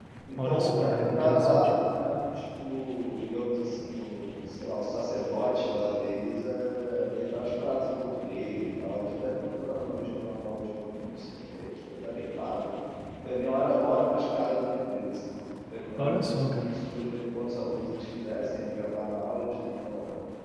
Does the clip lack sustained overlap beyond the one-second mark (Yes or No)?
No